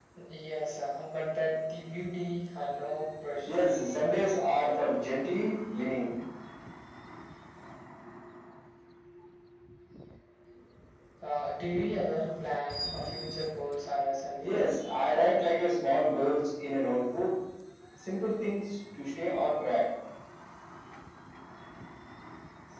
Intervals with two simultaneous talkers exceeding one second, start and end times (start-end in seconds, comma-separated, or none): none